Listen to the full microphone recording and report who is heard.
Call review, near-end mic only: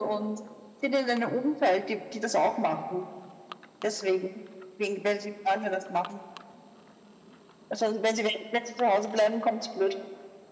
echo only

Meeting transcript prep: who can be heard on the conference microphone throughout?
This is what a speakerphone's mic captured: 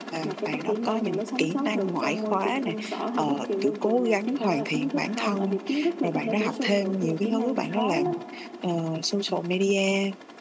both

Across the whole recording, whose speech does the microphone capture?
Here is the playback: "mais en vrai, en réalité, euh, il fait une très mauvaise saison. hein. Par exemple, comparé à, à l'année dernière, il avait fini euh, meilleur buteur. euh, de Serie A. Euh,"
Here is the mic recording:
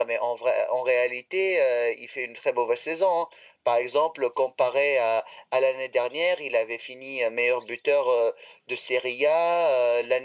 echo only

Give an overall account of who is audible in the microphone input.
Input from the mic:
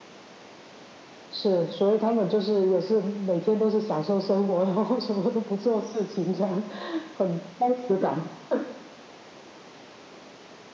echo only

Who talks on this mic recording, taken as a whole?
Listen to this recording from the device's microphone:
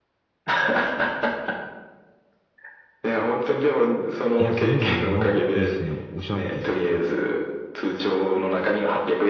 both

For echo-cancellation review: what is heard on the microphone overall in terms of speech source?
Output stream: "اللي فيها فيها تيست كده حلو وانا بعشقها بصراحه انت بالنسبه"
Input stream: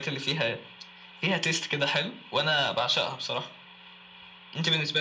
echo only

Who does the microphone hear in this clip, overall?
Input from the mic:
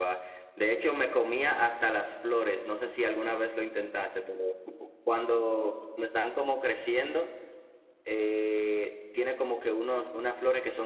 user only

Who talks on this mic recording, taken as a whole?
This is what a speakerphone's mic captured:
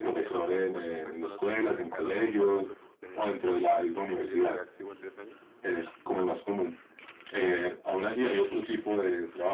both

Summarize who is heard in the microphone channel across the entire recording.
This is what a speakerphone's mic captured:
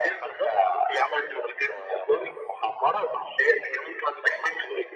echo only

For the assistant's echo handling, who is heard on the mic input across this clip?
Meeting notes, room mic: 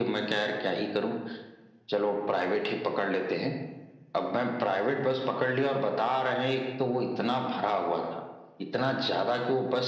echo only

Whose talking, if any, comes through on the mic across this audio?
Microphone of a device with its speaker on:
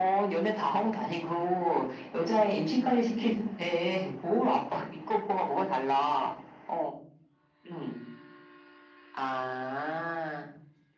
echo only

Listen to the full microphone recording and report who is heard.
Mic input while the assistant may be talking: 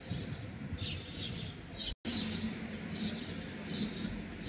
neither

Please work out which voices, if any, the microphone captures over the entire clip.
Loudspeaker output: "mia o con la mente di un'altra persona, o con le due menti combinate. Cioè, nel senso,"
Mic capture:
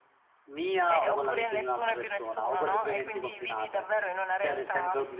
both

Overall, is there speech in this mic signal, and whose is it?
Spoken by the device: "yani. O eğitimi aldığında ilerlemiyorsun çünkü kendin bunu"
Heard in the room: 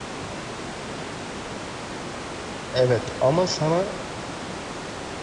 user only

